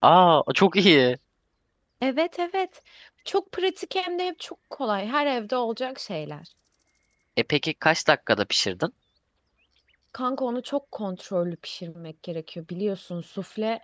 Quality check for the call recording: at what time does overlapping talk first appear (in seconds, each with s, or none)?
none